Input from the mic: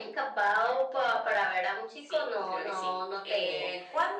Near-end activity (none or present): none